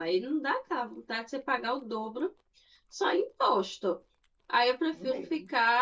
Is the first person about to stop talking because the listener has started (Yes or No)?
No